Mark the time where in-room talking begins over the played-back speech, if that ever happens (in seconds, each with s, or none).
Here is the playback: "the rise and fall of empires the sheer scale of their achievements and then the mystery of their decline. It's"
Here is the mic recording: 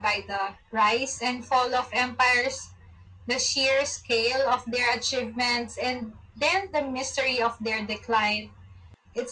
none